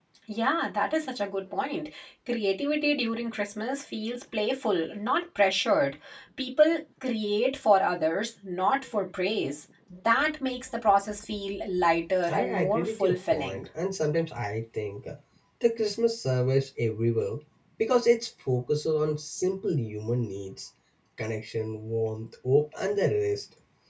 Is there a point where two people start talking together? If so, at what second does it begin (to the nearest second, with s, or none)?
12 s